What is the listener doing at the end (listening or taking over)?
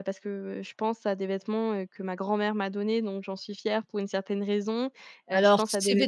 taking over